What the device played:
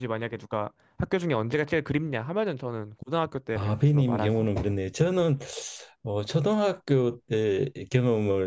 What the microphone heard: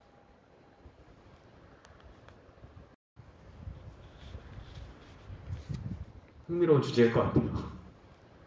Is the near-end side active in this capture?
Yes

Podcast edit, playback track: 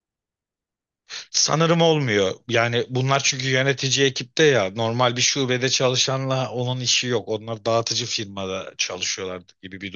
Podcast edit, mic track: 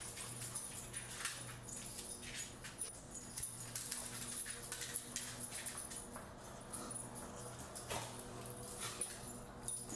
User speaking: No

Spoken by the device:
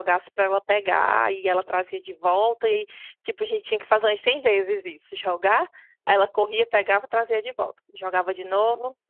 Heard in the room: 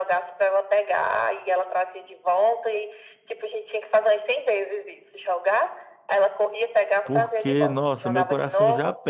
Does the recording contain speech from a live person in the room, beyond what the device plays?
Yes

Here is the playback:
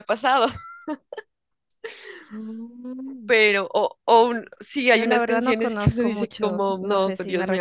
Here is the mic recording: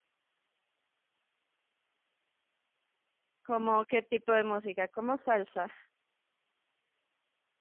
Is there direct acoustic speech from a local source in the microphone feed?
Yes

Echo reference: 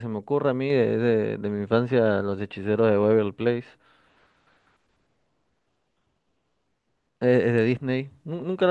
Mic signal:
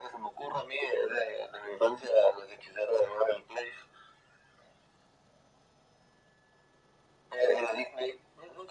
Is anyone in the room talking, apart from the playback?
No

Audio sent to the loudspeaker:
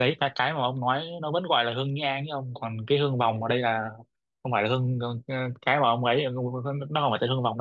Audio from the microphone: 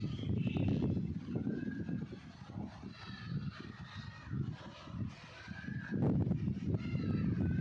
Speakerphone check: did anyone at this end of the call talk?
No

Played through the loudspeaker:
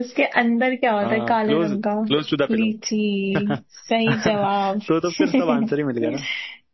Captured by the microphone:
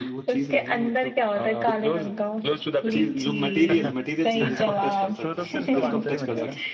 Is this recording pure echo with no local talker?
No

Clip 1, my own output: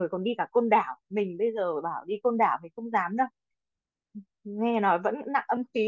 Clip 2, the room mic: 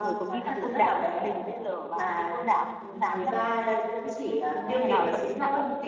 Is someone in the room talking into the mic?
Yes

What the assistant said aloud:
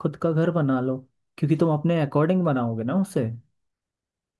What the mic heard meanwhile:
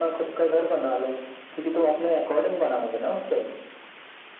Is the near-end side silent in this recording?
Yes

